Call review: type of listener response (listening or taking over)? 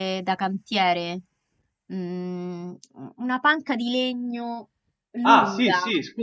taking over